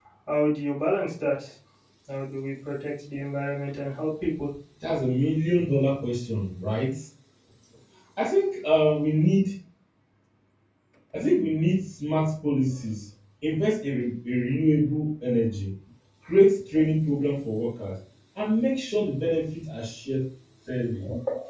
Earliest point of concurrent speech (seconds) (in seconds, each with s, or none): none